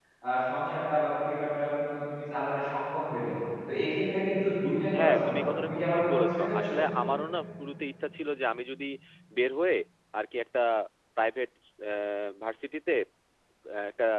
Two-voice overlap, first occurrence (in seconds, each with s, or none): 4.9 s